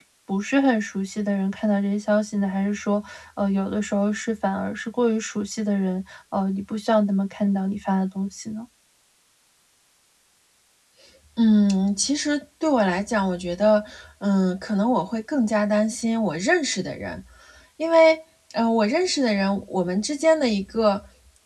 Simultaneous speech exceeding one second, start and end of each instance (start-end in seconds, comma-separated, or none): none